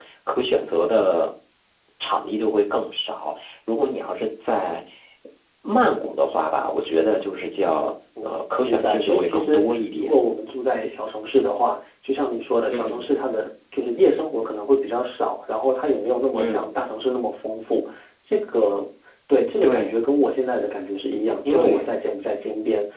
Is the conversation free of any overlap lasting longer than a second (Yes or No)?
No